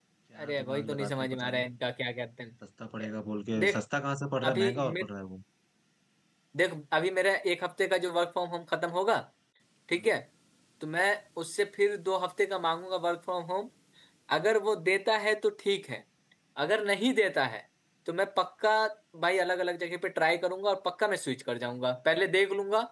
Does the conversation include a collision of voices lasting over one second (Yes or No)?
Yes